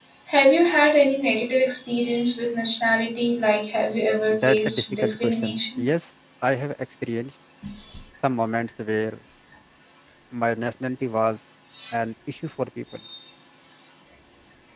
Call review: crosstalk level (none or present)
present